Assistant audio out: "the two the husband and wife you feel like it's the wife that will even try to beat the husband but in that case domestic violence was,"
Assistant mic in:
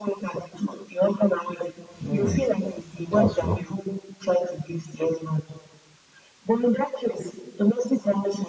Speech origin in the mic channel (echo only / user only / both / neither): both